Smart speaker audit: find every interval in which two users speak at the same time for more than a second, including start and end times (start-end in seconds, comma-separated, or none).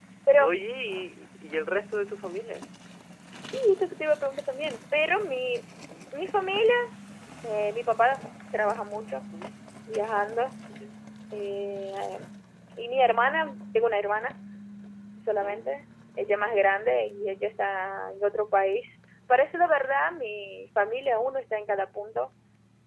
none